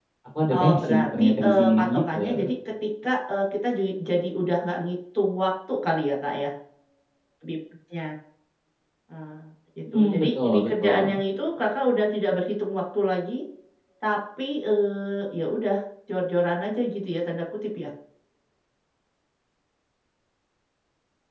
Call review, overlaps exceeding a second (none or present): present